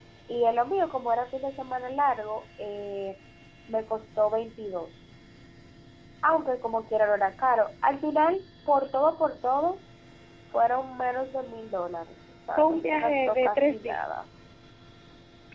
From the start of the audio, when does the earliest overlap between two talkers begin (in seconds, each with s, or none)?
12.6 s